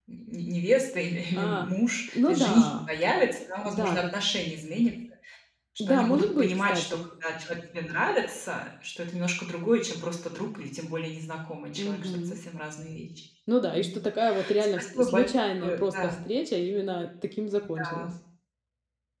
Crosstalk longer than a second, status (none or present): present